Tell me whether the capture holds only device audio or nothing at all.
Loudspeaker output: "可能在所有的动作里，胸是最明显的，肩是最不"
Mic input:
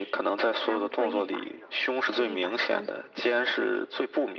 No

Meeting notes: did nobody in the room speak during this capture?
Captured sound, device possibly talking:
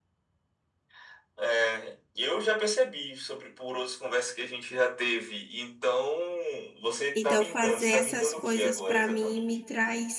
No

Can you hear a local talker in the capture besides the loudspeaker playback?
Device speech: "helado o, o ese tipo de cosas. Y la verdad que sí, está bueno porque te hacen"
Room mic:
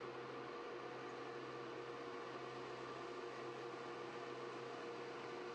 No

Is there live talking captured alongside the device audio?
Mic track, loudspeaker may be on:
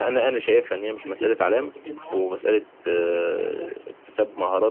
Yes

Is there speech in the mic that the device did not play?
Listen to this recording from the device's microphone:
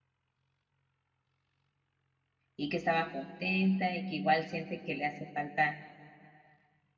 Yes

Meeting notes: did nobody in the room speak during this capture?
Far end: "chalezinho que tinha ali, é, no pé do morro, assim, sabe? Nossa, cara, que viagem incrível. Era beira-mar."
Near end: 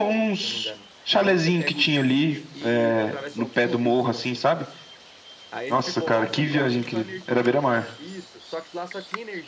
No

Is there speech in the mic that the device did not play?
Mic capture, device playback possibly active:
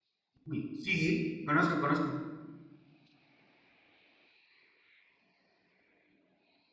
Yes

